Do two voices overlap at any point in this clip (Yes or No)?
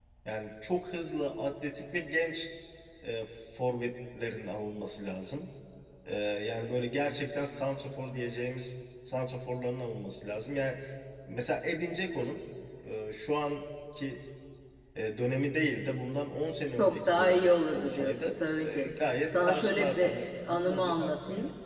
Yes